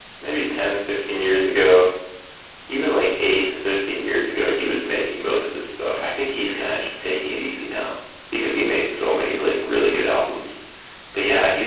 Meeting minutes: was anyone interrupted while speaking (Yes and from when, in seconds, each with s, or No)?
No